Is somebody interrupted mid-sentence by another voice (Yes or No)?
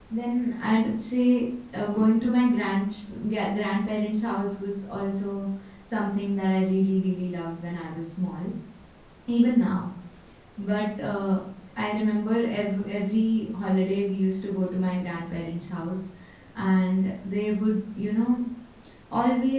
No